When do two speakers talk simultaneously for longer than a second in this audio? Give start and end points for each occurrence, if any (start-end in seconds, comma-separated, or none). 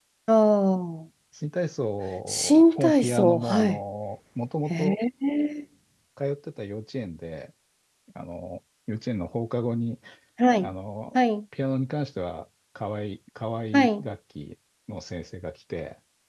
2.3-3.7